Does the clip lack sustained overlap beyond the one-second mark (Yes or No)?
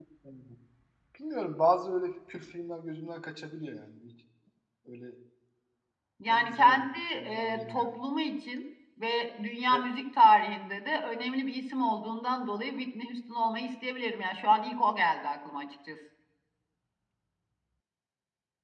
No